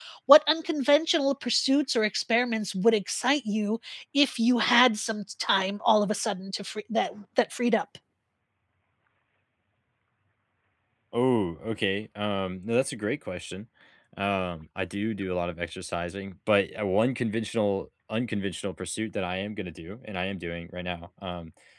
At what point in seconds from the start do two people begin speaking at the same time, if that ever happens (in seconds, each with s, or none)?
none